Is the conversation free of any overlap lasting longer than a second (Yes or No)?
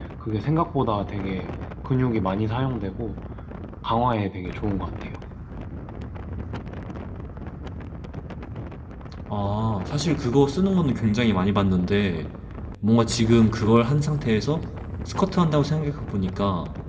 Yes